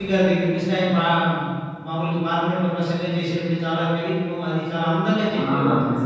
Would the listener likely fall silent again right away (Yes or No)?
No